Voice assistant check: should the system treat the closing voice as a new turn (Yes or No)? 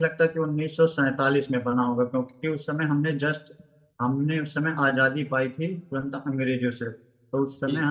No